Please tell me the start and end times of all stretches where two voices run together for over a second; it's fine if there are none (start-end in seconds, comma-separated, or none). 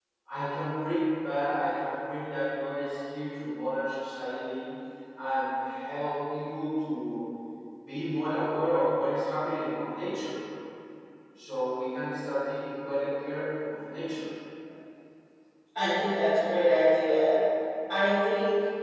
none